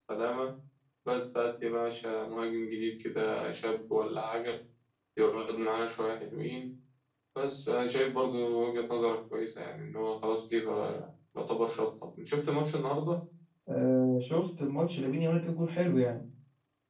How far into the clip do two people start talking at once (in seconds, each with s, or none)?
none